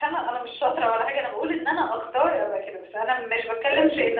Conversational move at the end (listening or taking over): listening